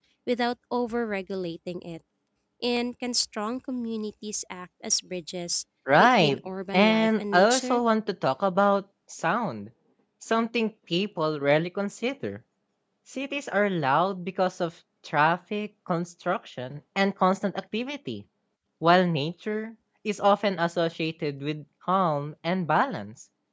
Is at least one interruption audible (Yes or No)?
Yes